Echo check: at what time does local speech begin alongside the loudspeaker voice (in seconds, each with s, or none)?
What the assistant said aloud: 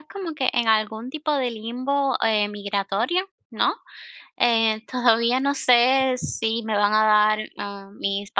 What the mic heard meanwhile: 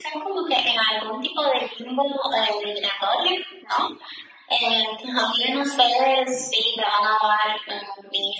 none